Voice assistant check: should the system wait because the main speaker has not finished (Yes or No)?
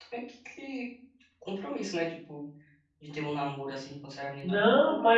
No